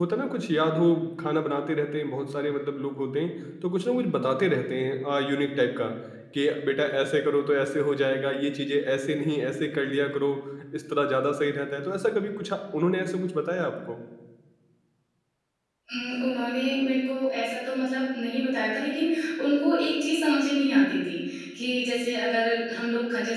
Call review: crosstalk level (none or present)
none